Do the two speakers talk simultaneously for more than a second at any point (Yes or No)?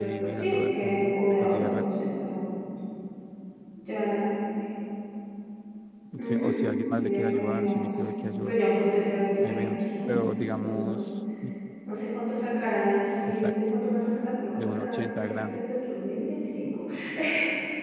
Yes